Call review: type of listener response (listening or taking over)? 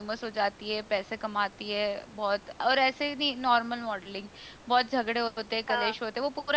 listening